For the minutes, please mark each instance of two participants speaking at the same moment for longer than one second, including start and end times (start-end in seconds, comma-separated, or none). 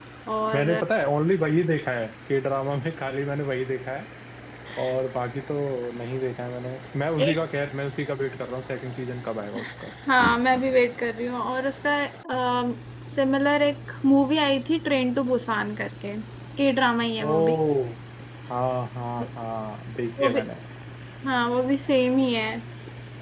none